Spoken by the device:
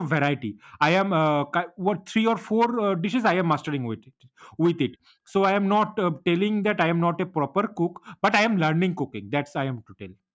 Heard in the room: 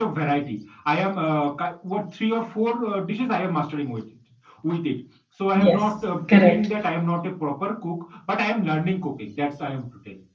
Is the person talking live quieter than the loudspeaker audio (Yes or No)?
No